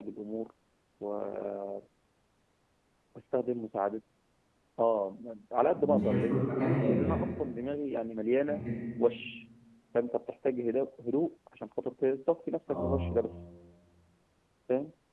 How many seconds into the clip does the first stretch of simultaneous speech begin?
5.7 s

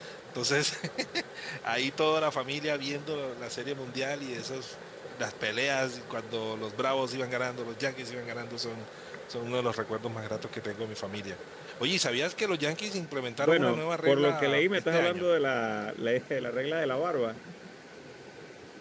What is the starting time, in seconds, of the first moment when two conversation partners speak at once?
13.4 s

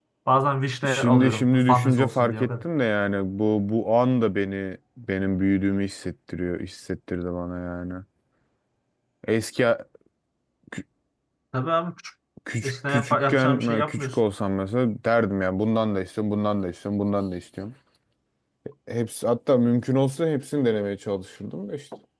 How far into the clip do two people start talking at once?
0.9 s

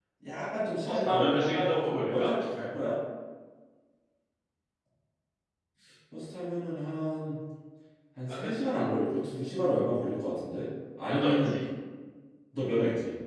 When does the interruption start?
0.9 s

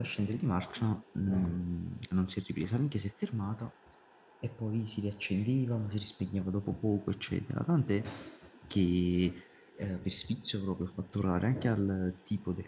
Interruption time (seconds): none

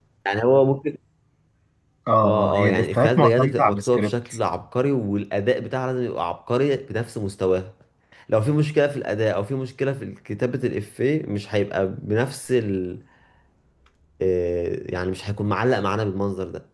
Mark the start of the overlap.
2.2 s

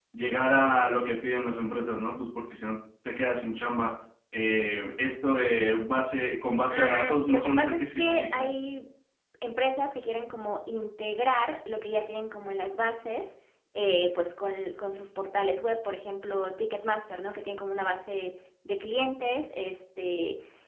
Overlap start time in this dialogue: 6.7 s

